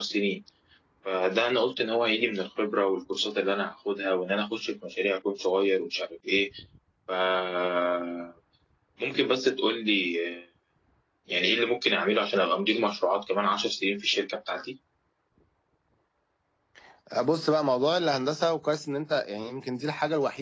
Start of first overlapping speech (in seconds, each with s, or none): none